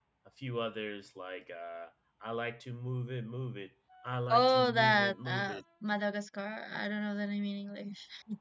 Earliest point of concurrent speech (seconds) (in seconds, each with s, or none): 4.3 s